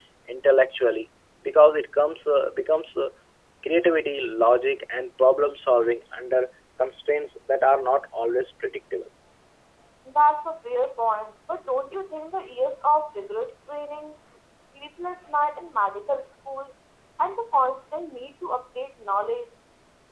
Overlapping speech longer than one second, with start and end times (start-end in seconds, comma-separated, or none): none